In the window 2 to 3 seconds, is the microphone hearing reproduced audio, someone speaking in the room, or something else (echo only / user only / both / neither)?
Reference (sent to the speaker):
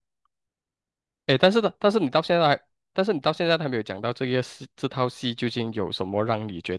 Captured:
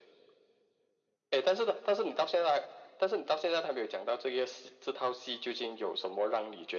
echo only